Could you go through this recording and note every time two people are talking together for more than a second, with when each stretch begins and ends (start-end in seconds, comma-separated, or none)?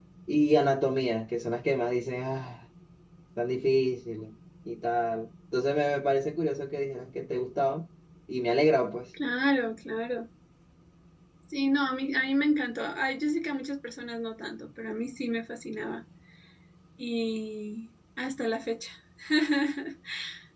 none